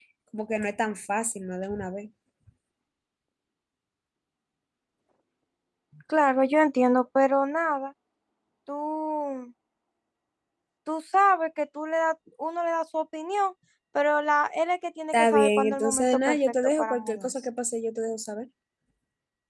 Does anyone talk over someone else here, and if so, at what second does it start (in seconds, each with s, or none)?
15.1 s